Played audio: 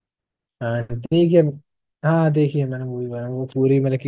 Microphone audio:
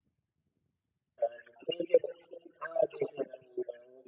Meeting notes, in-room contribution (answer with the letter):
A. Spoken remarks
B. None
B